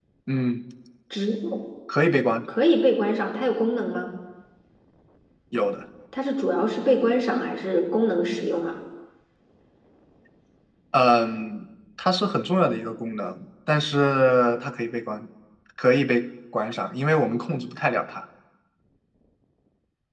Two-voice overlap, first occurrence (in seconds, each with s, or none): none